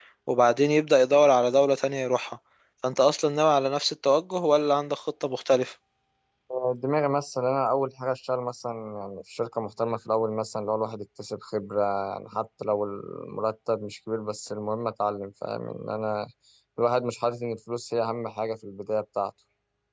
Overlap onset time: none

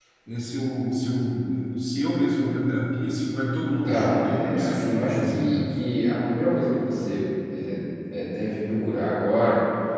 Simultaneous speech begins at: 3.8 s

